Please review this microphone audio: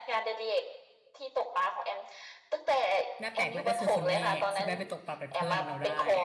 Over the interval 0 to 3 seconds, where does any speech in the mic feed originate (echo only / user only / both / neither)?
echo only